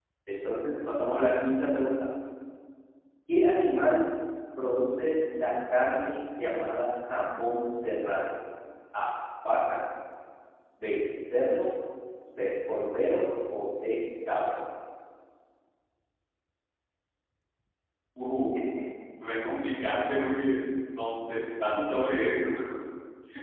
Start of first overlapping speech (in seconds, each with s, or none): none